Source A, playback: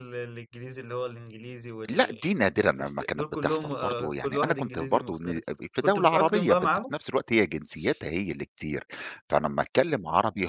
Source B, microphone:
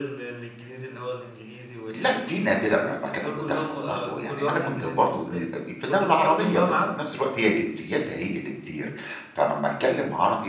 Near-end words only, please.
none

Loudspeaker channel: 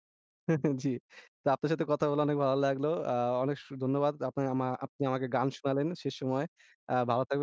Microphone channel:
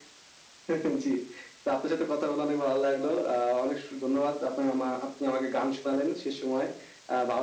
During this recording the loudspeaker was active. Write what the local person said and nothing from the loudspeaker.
none

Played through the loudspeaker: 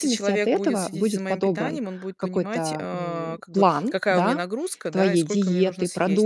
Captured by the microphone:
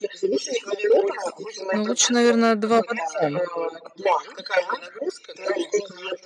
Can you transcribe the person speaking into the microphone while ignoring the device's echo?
Ну, лучше, наверно, 2 в 1.

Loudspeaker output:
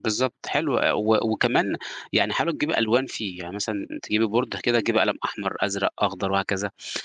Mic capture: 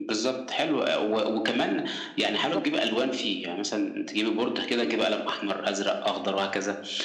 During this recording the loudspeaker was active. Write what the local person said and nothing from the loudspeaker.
بالضبط.

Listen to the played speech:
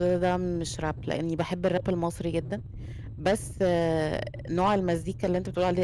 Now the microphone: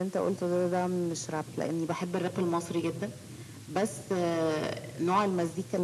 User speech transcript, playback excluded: none

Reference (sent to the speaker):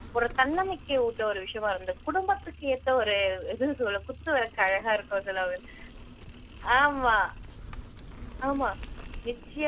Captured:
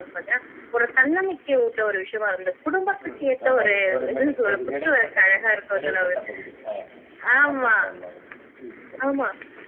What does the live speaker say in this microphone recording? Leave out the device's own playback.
ம்ஹ்ம். அதாவது, ஒரு மிடில். ஒரு இடைப்பட்ட பகுதி இடைப்பட்ட பகுதி. அ அர்பன் டவுன் மாதிரி. ம். சரி.

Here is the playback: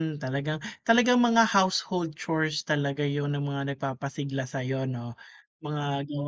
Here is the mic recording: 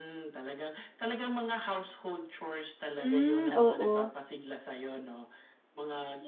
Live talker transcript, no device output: Hmm, oo.

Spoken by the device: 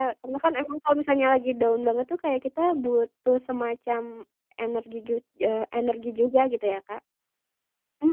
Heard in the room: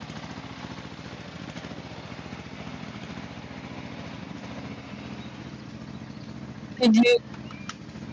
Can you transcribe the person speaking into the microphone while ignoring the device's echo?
Setuju.

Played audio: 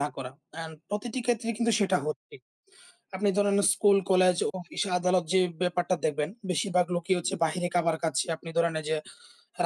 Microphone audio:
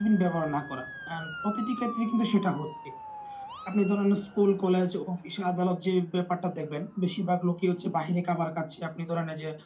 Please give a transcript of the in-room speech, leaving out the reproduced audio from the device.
none

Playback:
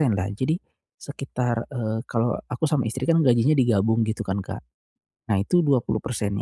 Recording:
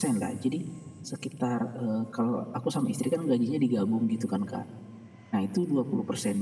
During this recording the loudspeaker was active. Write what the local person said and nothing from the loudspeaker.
none

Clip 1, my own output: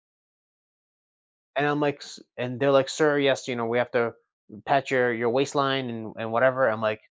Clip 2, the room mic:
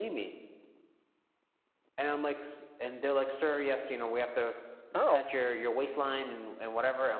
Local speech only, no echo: Oh.

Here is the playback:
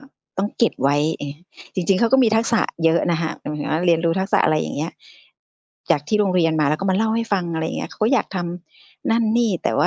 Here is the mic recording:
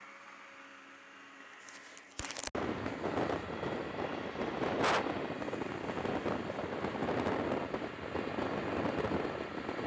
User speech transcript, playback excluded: none

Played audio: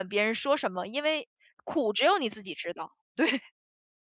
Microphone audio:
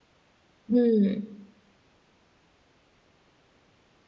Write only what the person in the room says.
嗯。

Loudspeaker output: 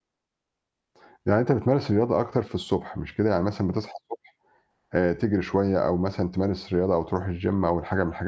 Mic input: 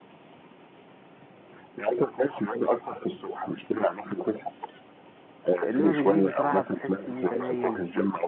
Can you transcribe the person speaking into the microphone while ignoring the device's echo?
إنما بالليل بصراحة بتحس إن أنت نايم

